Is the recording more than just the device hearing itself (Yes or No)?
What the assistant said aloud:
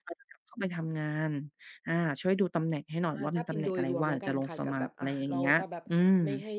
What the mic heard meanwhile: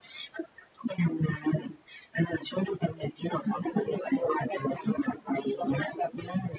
No